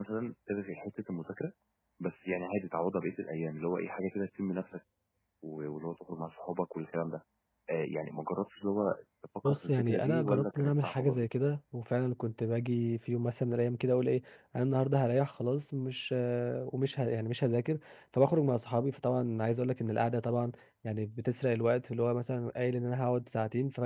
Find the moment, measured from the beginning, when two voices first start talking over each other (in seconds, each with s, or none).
9.4 s